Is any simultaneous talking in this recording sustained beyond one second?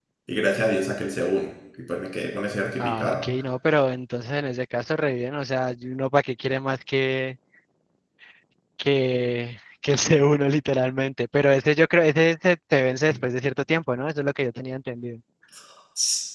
No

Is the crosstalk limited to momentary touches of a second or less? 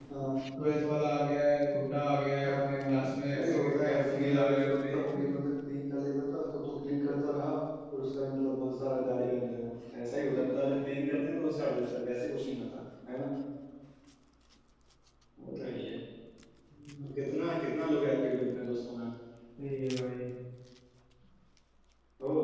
No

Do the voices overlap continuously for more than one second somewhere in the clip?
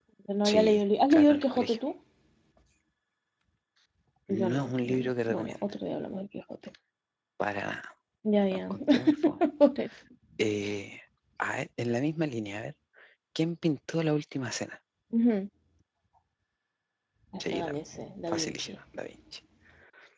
Yes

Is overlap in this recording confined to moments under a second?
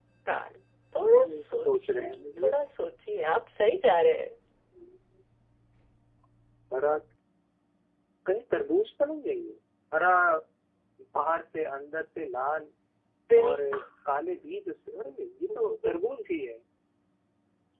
No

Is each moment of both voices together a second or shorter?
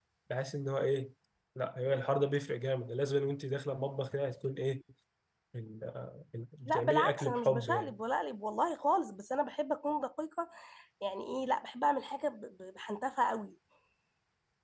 No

